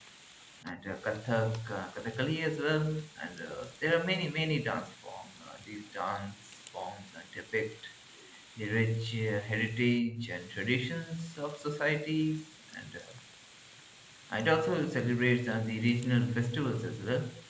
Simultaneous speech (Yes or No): No